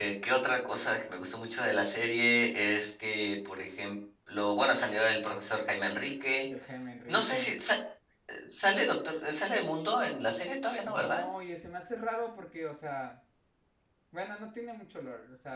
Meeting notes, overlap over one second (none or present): none